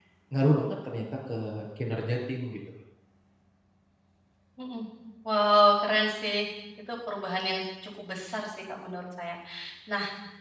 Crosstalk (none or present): none